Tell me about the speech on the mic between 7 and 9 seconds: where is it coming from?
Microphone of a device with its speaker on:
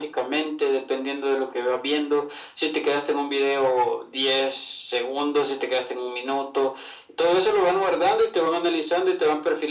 echo only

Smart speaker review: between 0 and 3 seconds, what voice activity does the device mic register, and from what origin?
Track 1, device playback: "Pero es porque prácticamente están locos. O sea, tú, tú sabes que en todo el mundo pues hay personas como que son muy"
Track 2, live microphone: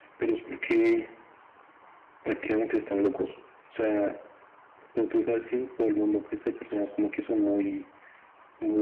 echo only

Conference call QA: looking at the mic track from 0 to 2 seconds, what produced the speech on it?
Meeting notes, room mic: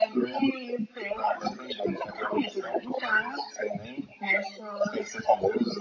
echo only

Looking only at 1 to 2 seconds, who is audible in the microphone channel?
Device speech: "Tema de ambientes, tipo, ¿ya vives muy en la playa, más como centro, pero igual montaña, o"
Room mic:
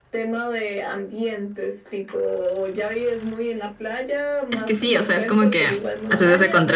echo only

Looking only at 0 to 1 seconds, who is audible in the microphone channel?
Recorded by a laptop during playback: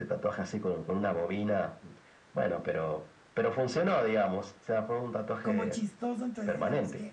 echo only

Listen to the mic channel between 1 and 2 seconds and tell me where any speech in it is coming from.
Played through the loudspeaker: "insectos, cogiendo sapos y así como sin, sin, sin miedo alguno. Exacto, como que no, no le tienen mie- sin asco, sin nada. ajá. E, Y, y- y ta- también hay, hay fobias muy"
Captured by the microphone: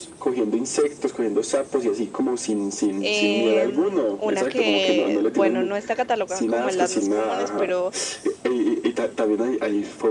echo only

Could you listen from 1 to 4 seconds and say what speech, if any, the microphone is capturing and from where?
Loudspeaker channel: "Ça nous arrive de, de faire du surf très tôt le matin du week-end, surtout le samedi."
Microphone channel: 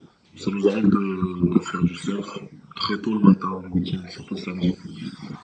echo only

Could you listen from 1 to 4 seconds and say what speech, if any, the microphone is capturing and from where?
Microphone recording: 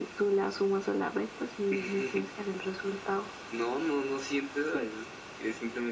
echo only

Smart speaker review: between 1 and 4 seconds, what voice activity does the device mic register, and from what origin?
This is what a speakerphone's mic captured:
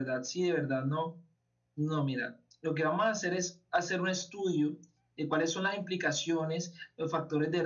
echo only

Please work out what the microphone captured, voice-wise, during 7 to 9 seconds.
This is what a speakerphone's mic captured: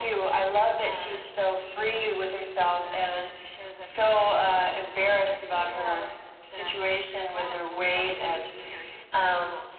both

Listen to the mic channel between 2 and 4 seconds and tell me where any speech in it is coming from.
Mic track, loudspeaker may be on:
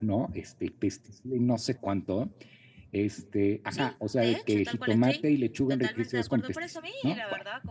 echo only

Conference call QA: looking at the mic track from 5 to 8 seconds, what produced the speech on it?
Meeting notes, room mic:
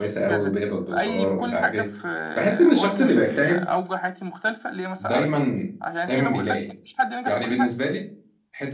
both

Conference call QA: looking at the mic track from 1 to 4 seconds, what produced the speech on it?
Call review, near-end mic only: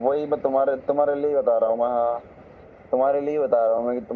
echo only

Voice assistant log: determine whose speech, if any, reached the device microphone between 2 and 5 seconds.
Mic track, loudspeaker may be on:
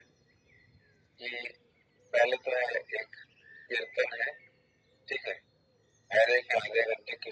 echo only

